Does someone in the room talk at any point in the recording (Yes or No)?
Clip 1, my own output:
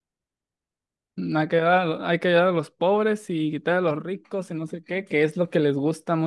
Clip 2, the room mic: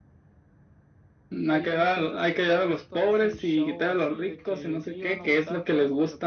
Yes